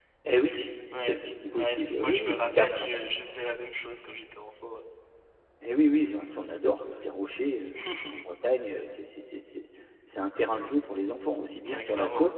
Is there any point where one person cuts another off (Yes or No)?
Yes